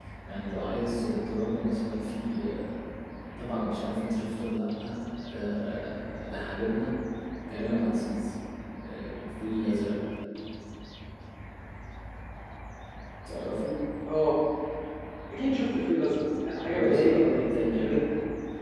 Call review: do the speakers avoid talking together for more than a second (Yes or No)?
No